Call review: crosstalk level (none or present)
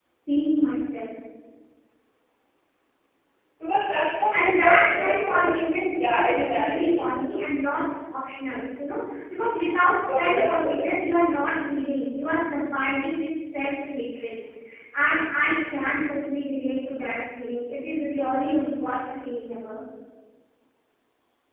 present